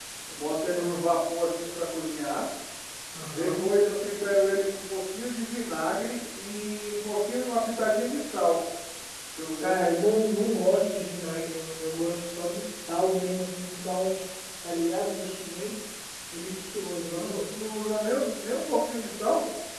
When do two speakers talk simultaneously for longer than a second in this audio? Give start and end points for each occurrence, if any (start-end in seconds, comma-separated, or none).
none